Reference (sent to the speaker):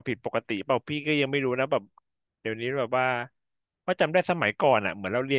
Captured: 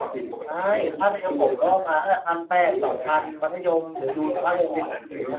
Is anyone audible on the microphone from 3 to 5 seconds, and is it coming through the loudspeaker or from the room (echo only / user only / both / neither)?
both